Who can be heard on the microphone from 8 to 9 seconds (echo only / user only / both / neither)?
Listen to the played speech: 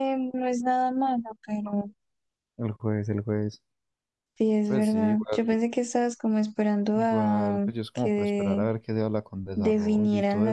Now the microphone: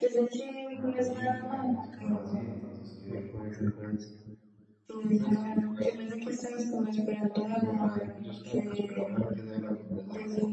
echo only